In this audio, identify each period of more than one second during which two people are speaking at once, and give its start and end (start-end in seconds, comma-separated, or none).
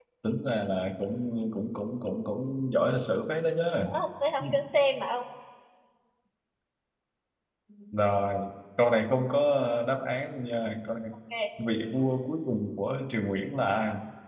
none